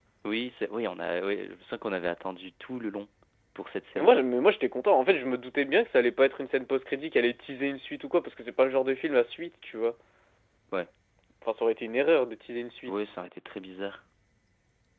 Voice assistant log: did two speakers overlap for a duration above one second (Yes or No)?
No